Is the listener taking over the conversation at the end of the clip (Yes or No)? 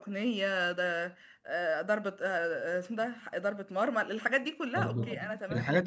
Yes